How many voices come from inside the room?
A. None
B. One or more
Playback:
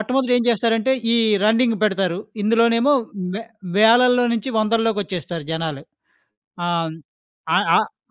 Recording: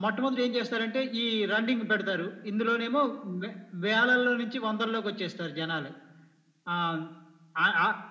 A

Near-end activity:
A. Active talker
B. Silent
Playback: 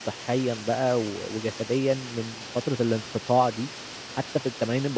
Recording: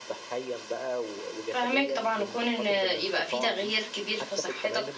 A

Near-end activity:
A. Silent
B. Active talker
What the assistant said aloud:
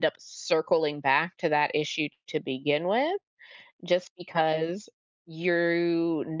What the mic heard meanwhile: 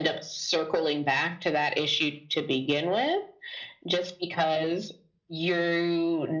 A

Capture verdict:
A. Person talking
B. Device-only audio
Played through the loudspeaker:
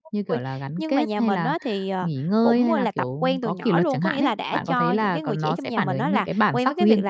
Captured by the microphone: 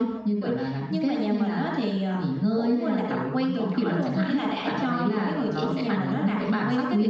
B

